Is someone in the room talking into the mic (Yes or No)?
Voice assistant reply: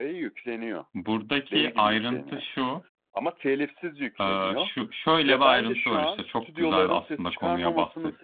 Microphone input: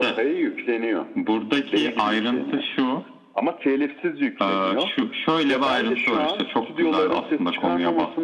No